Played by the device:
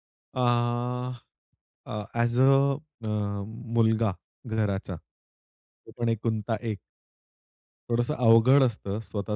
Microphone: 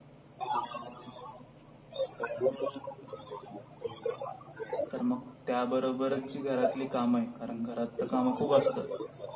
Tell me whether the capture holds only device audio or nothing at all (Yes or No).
No